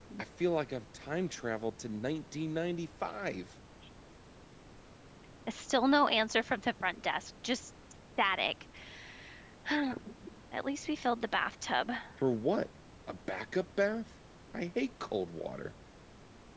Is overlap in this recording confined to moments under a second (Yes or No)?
Yes